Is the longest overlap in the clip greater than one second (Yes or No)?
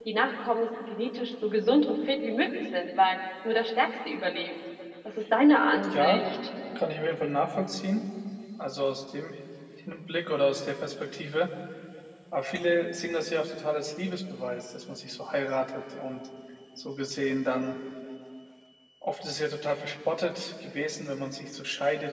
No